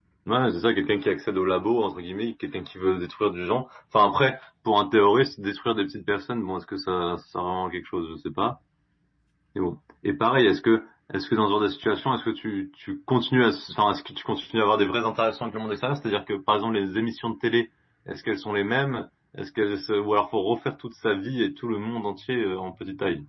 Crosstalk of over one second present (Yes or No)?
No